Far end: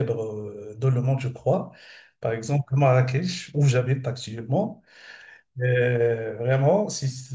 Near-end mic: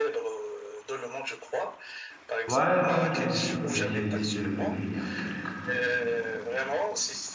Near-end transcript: ouais, ouais, j'ai visité, j'ai visité le Bénin il y a quelques temps.

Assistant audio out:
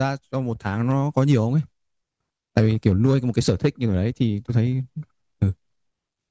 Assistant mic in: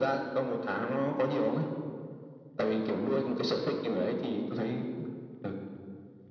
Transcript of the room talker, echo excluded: none

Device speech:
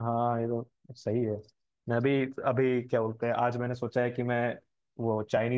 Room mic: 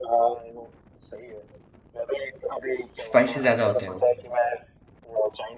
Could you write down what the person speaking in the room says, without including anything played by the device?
स्पाइसी ज्यादा होते हैं वो

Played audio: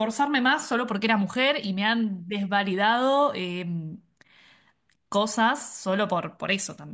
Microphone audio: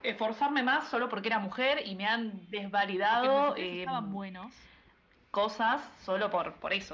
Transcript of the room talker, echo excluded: porque los desafíos estaban buenos,

